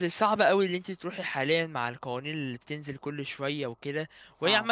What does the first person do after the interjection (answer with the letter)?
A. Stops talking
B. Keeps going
B